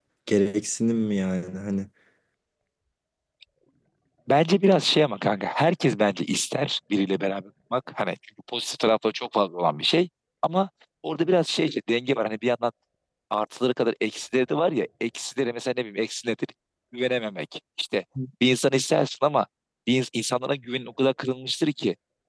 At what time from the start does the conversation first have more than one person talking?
none

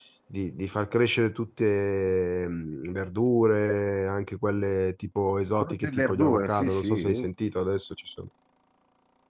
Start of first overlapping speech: 6 s

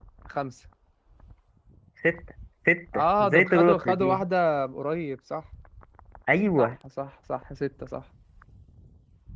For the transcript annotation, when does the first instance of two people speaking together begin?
3 s

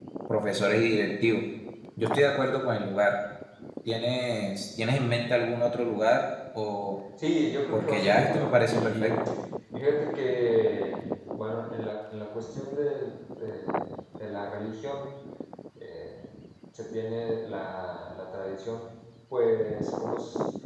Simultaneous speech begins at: 8 s

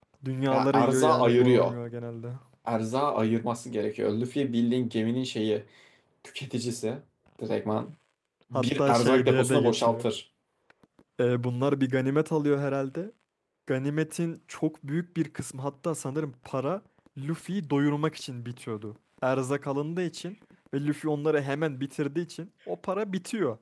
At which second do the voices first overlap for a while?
1 s

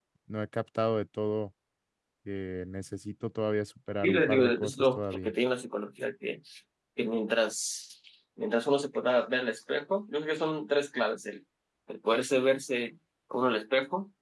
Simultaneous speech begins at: 4 s

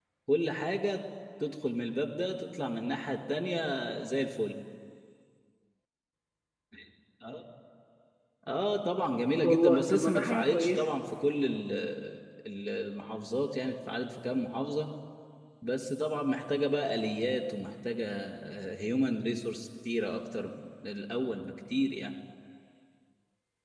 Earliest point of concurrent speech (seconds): 9 s

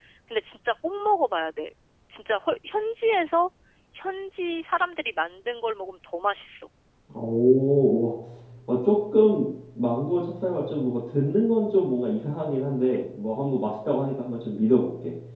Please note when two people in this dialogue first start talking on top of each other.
none

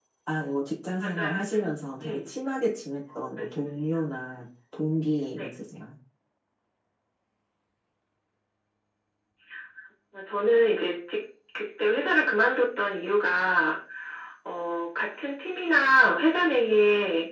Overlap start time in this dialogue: 1 s

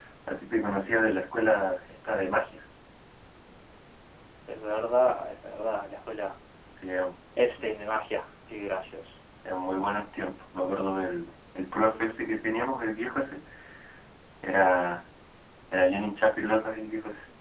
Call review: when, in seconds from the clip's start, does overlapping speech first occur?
none

